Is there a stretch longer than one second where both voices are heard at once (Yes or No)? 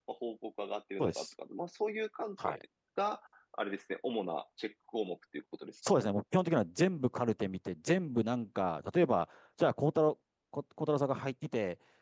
No